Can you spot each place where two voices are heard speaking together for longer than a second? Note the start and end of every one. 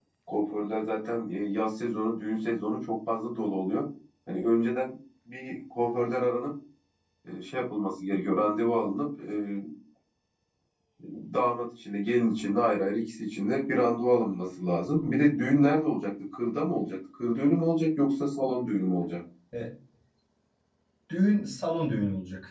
none

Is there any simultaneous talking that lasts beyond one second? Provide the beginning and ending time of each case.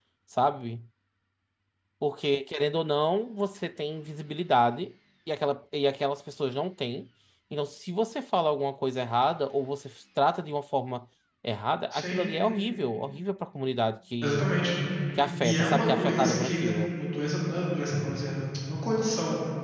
15.4-16.8

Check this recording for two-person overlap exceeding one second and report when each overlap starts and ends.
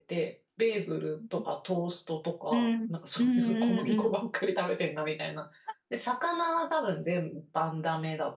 2.5-4.1

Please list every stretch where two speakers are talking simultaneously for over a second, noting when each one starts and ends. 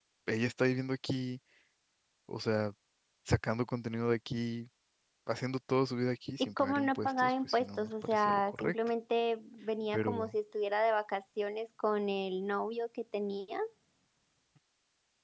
6.4-8.7

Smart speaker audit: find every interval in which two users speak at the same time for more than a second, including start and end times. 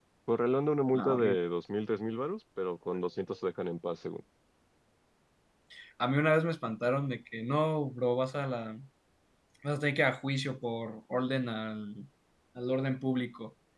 none

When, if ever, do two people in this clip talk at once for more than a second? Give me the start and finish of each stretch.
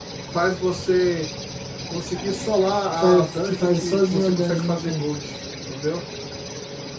3.0-5.0

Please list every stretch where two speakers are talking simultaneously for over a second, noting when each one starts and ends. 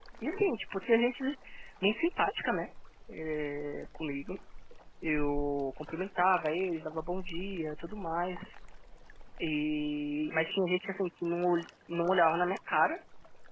none

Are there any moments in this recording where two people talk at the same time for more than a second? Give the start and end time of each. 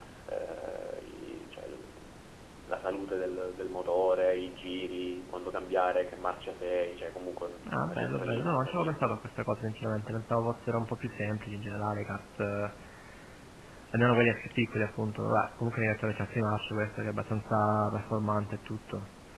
7.7-9.1

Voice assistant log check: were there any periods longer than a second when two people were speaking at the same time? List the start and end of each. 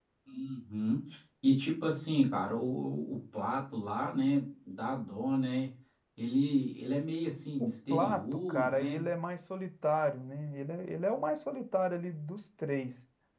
7.6-9.0

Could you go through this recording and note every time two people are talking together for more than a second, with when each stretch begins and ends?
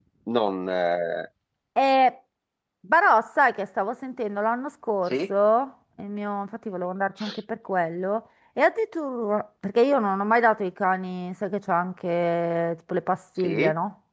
none

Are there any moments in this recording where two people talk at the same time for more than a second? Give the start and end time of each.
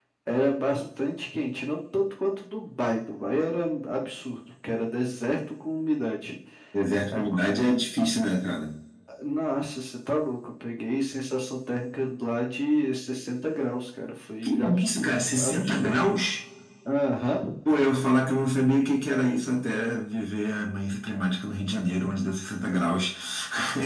14.4-16.2

